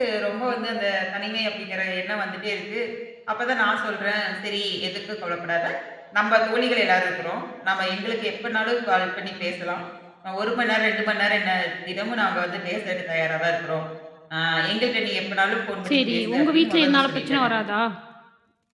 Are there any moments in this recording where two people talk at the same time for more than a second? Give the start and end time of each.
15.9-17.5

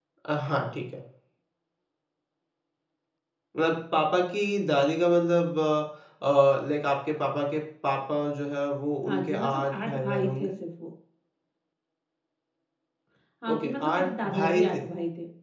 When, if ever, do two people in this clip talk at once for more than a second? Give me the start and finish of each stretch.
9.1-10.5, 13.5-14.8

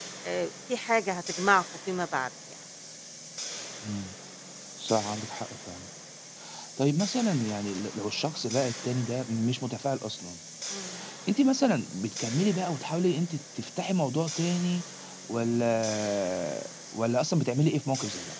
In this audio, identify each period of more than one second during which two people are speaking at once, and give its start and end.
none

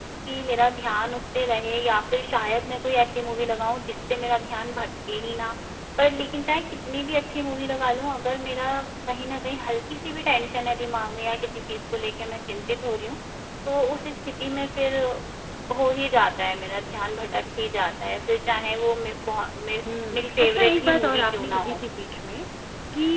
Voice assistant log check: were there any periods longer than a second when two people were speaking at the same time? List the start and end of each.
20.1-21.8

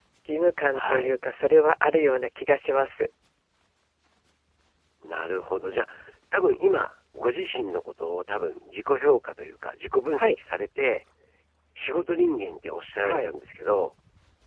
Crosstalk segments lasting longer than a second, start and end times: none

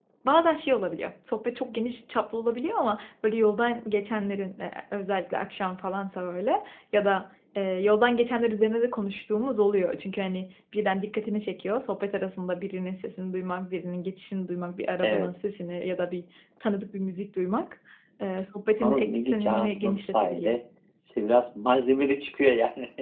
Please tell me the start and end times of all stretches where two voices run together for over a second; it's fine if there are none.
18.8-20.6

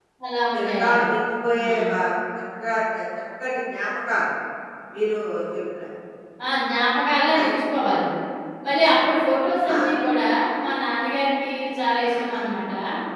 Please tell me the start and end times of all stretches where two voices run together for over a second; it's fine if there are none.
none

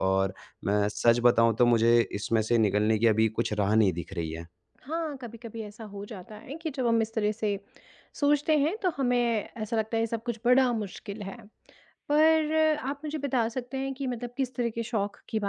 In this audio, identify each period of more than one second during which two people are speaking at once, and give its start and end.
none

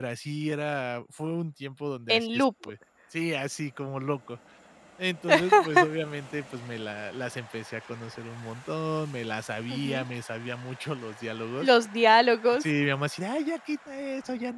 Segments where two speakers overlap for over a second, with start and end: none

